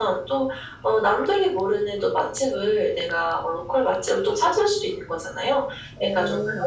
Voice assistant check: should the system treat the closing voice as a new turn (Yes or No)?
No